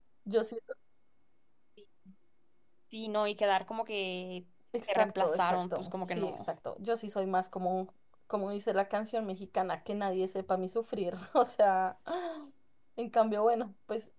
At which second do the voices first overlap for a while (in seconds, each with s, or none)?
4.9 s